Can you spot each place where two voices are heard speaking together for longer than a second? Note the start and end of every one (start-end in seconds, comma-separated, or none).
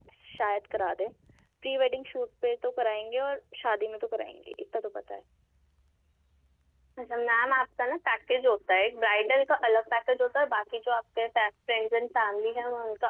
none